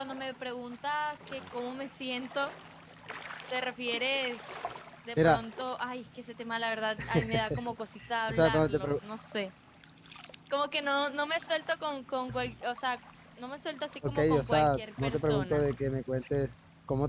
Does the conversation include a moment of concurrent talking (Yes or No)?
Yes